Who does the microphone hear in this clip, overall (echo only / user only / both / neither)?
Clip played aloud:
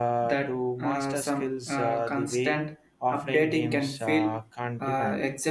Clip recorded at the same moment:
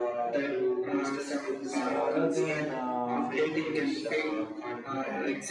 both